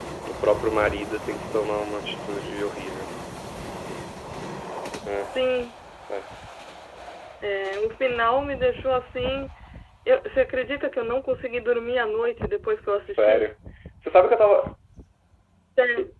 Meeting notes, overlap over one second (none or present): none